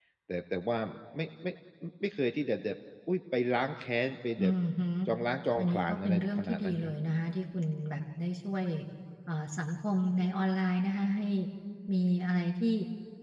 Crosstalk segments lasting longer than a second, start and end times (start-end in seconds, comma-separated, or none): 5.6-6.9